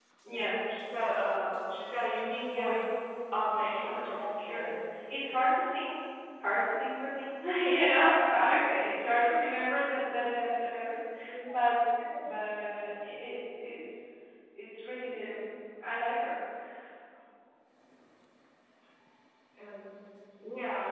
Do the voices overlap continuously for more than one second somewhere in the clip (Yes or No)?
Yes